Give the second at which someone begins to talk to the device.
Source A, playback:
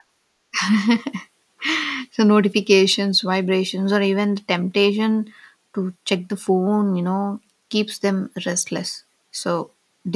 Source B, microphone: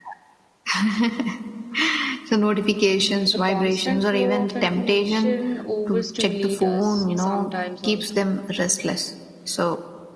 3.3 s

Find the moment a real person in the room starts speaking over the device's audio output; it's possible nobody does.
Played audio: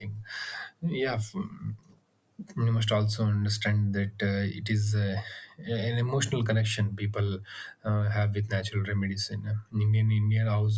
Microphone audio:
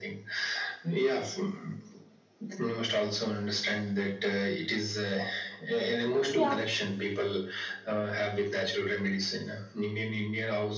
6.3 s

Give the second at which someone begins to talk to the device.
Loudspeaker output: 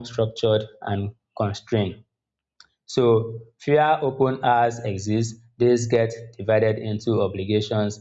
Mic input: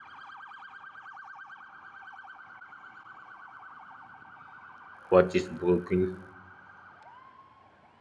5.1 s

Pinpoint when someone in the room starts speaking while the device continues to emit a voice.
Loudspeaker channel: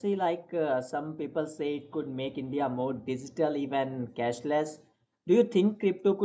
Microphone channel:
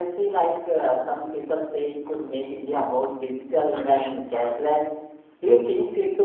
3.7 s

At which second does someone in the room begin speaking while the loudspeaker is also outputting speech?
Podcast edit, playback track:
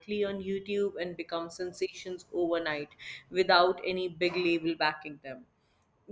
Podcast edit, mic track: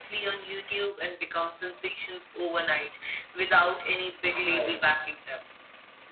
4.4 s

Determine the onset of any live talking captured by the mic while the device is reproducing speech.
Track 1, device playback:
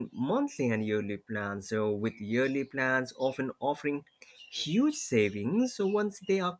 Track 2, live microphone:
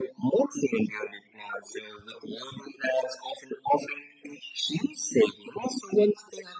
none

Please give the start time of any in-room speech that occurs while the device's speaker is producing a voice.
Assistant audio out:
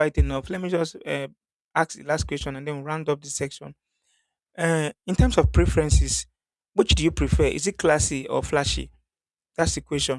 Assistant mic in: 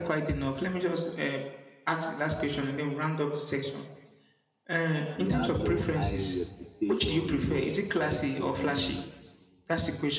5.1 s

